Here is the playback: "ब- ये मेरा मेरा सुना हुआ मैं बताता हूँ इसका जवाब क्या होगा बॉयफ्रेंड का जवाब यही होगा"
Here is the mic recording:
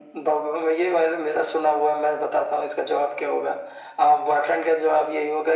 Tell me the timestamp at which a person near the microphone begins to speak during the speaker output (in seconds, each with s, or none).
none